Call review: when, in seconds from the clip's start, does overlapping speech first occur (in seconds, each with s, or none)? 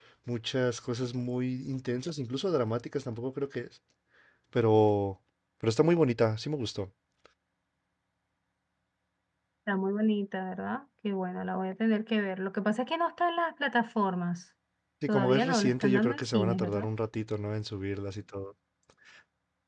15.1 s